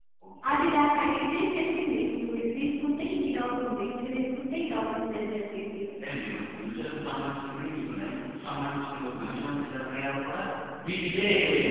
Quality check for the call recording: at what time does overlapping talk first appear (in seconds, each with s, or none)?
none